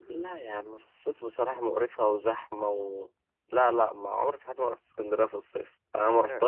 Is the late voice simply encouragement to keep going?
Yes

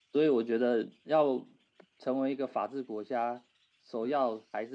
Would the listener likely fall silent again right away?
Yes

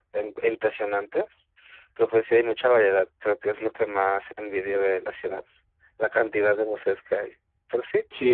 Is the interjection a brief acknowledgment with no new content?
No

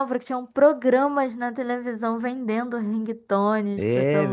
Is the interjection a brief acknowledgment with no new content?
No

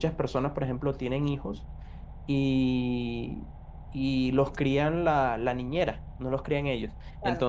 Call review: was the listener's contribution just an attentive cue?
Yes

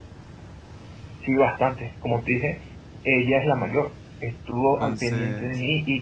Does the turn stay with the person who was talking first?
Yes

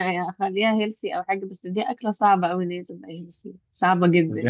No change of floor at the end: No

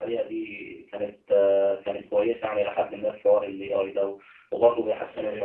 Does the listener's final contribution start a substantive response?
Yes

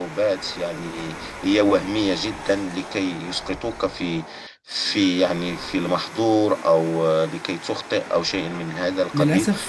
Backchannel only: No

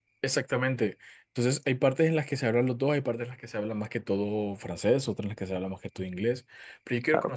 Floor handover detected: No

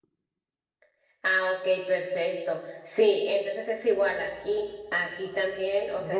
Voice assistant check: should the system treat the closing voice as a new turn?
No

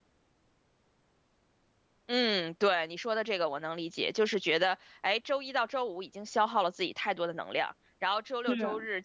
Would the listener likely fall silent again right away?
Yes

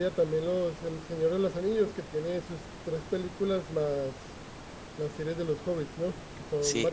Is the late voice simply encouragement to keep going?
No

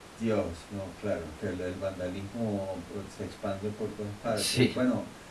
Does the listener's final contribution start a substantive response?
No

